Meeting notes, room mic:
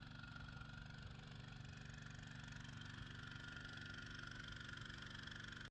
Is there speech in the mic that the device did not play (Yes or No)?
No